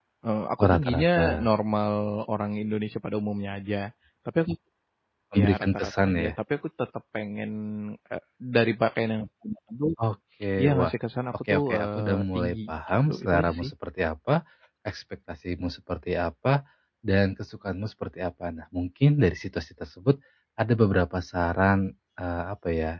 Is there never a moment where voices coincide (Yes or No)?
No